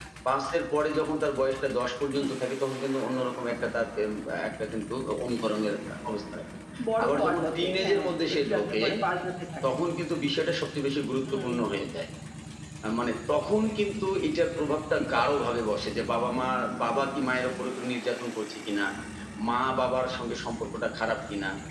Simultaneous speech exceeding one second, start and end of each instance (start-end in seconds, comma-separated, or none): 7.0-8.8